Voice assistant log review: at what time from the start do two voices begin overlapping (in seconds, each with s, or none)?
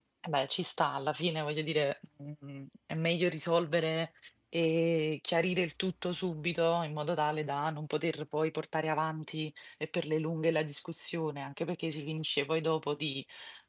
none